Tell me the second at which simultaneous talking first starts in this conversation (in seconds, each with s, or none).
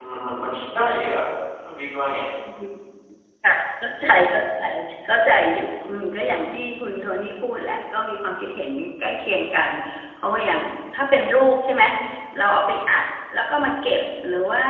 none